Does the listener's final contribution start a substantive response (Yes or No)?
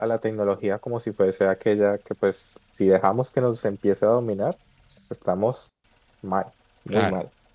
Yes